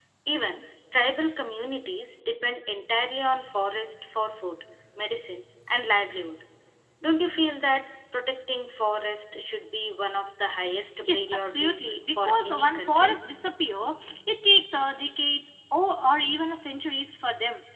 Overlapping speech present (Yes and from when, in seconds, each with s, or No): Yes, from 11.0 s